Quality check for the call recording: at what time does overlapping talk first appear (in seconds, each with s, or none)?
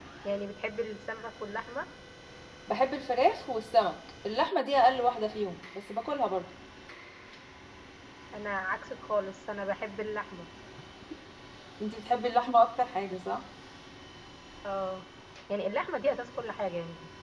none